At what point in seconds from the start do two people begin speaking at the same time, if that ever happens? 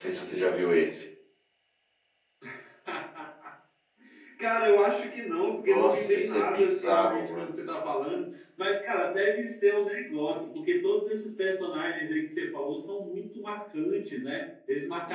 5.7 s

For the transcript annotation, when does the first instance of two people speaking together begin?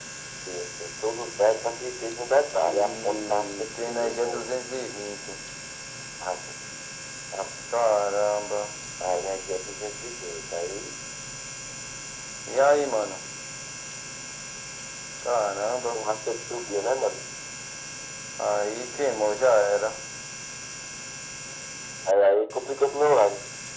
2.6 s

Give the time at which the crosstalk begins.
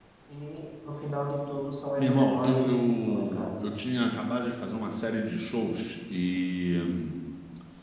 2.0 s

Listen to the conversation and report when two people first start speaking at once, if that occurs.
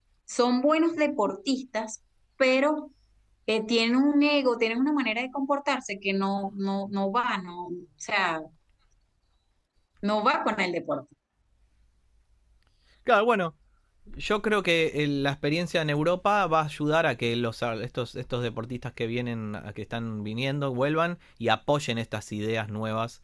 none

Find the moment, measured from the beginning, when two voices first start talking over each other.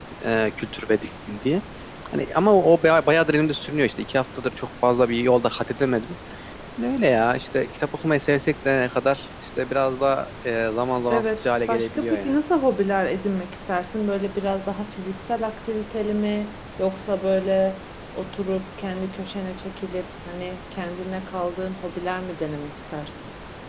11.1 s

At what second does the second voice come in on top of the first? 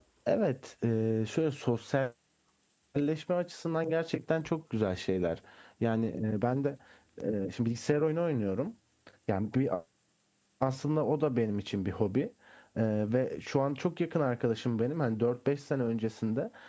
none

